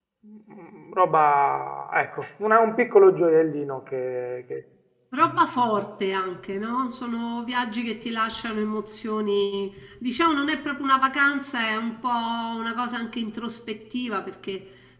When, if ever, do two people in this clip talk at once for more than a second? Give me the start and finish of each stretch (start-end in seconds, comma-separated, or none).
none